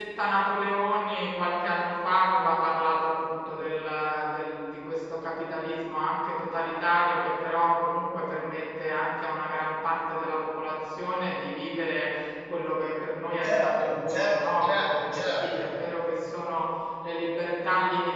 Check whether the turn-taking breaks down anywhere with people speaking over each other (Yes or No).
Yes